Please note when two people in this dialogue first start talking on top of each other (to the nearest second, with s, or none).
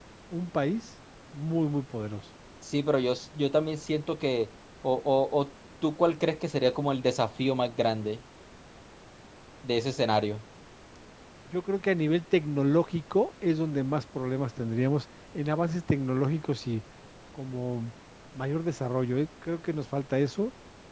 none